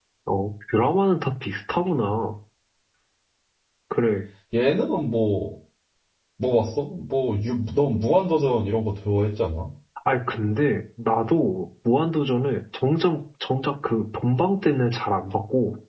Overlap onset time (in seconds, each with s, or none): none